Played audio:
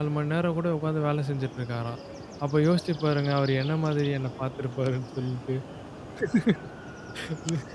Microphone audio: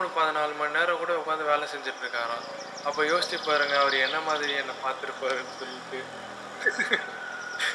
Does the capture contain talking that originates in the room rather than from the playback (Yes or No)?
No